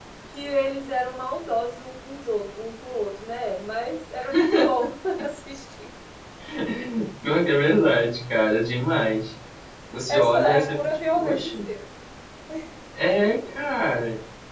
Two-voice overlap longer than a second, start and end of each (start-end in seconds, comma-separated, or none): 10.1-11.5